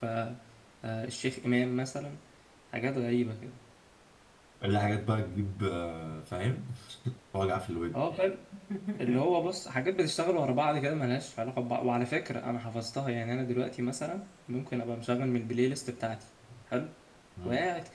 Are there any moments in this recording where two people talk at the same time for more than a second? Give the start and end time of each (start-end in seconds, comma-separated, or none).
none